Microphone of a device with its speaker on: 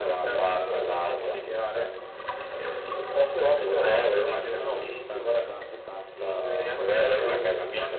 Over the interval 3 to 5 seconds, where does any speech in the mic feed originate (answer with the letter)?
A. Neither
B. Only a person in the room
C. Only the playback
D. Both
D